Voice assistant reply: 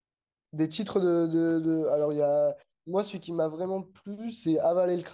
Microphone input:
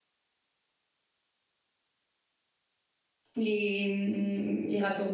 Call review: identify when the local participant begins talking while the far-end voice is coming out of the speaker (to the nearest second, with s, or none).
3 s